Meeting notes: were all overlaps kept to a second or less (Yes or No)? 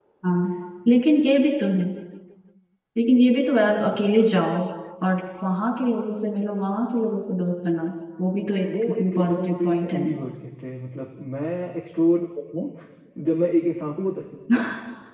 No